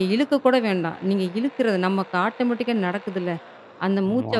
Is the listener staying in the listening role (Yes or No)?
Yes